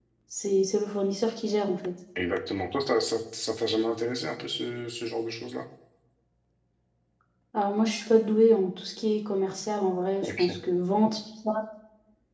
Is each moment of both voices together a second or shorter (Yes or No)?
Yes